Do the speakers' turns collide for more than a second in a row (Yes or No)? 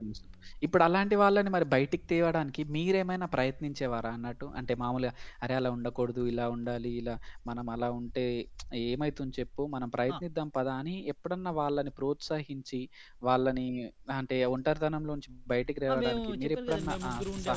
Yes